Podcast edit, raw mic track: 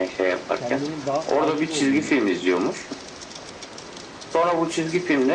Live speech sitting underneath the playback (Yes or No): Yes